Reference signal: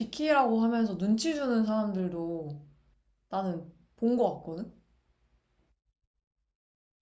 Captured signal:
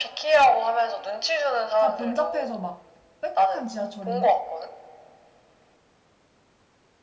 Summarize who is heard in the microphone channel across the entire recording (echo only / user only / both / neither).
both